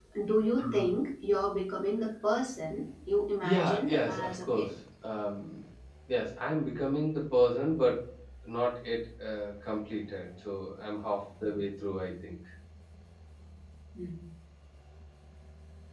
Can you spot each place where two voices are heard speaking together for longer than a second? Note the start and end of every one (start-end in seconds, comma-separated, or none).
3.4-4.7